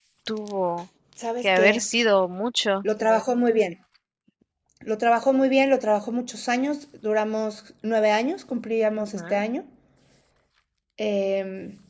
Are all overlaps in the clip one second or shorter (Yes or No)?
Yes